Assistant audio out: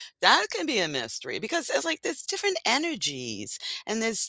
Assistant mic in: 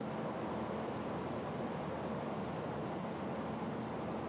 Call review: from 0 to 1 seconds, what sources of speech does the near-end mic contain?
neither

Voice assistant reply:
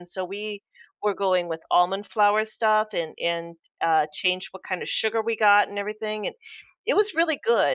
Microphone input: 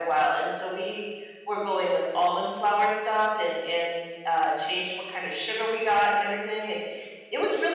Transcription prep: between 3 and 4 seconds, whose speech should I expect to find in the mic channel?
echo only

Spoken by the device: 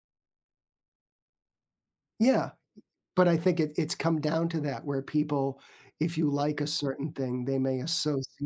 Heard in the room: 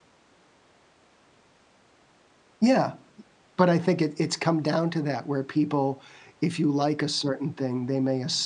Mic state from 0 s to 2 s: neither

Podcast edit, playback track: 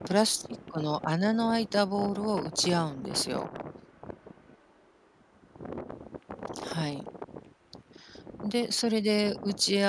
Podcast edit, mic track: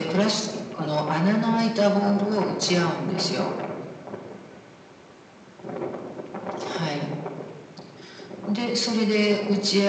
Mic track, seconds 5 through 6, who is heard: neither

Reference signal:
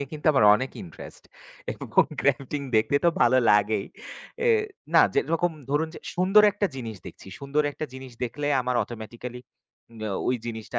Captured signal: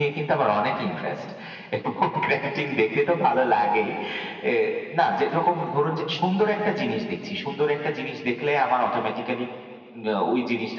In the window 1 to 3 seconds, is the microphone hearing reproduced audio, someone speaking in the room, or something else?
echo only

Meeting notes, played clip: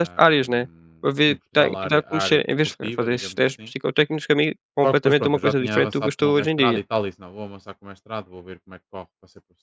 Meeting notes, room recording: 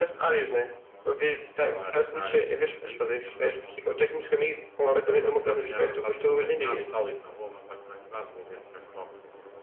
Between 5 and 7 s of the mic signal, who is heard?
echo only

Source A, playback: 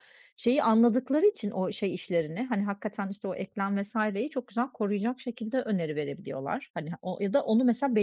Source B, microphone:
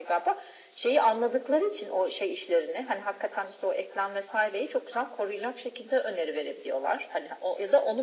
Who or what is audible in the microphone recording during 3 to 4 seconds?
echo only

